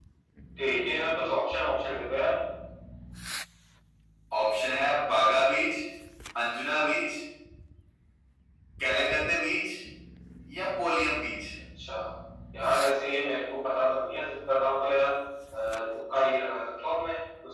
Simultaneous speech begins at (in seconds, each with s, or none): none